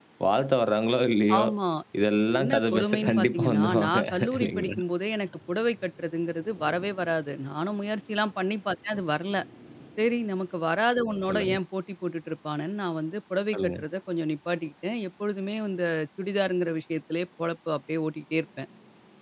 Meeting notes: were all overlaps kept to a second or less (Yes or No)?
No